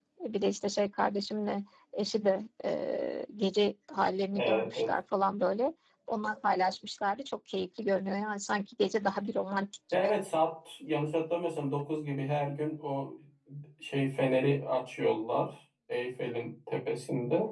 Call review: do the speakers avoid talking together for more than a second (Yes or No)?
Yes